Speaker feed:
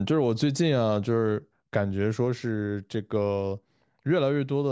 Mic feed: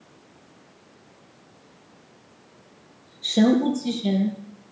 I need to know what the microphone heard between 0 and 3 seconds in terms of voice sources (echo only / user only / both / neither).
neither